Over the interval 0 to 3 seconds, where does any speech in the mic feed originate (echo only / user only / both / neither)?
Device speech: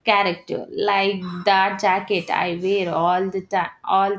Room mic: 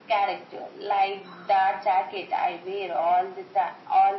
echo only